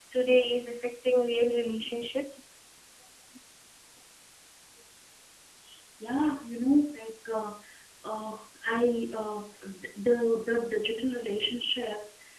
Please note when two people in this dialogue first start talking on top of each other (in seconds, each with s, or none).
none